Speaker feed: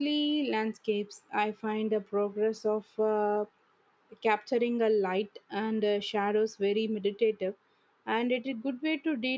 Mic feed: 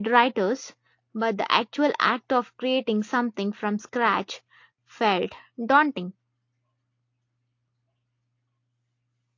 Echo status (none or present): none